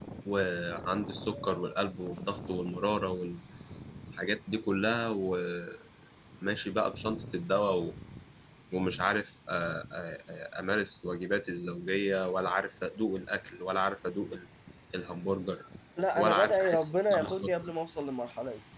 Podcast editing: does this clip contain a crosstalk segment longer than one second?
Yes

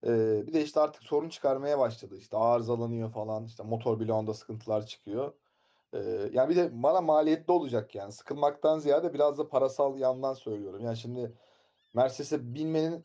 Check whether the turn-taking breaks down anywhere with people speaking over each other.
No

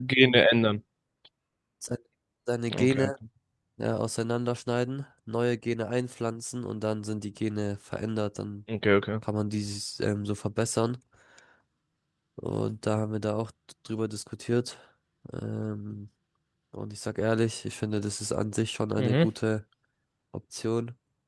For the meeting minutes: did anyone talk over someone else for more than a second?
No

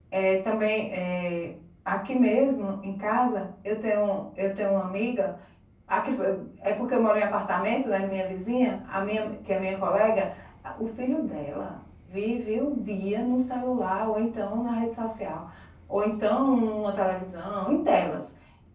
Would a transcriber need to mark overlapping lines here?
No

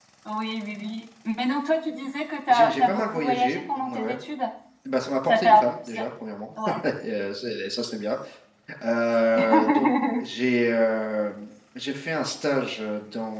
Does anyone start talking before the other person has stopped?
Yes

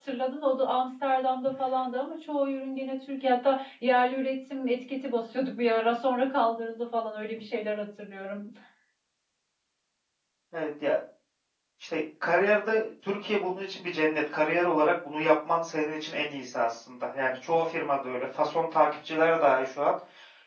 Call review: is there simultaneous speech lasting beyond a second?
No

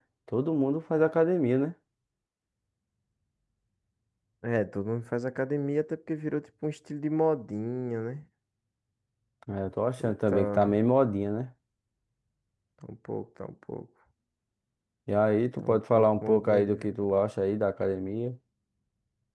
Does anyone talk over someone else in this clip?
Yes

